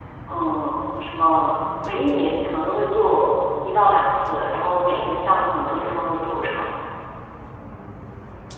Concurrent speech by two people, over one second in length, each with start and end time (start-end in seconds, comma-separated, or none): none